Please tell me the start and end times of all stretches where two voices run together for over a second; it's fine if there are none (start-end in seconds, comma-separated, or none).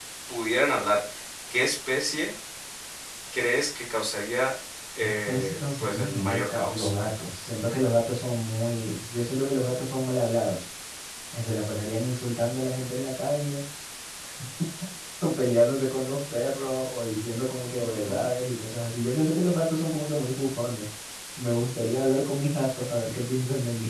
5.0-6.9